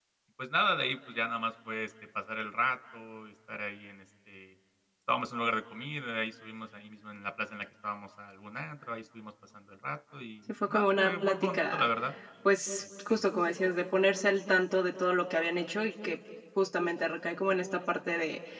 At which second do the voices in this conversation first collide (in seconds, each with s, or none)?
10.6 s